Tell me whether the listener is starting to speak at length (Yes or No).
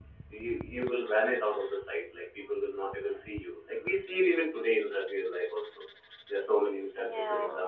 No